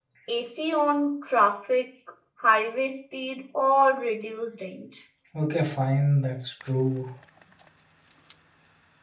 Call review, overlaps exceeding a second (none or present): none